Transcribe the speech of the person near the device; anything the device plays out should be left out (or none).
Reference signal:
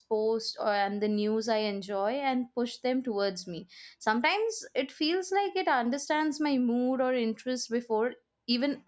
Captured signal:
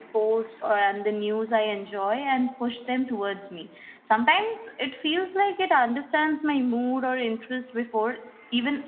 none